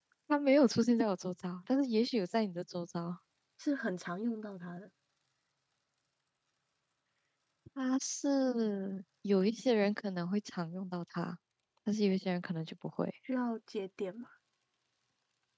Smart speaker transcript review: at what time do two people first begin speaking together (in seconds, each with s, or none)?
none